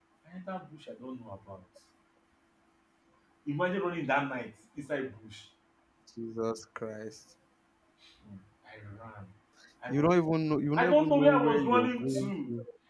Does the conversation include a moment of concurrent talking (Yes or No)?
Yes